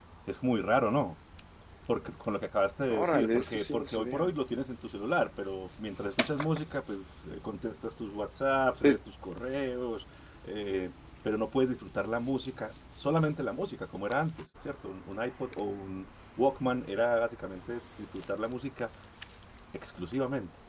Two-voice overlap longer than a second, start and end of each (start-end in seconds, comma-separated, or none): 2.9-4.3